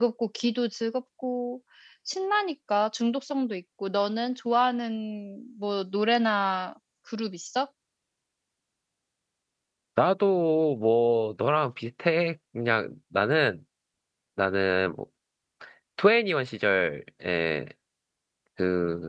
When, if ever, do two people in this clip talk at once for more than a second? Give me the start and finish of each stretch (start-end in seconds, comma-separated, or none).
none